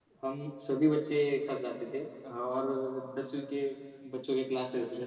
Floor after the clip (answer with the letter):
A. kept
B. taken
A